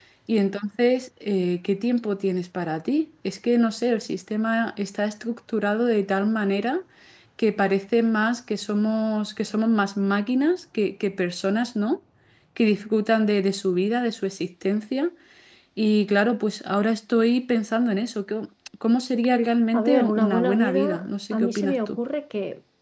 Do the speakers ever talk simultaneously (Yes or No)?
Yes